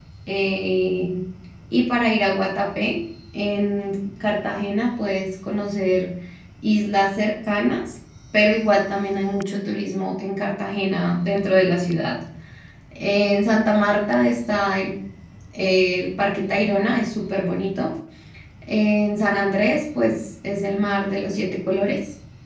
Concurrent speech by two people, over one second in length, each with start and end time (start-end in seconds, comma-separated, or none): none